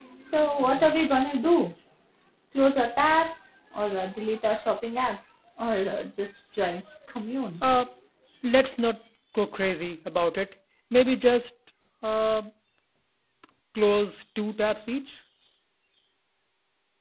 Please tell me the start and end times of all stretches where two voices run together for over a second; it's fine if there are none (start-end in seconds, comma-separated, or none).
none